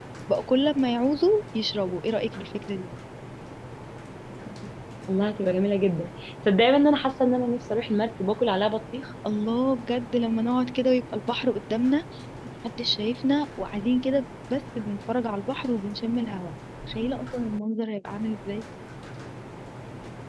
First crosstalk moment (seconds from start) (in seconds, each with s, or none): none